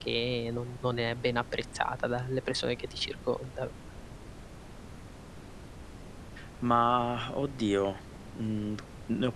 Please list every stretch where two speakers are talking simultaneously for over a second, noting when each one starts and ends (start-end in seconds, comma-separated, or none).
none